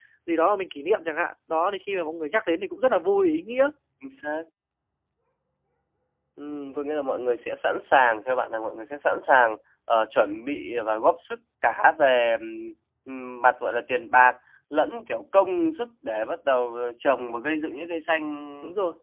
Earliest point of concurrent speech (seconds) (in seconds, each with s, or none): none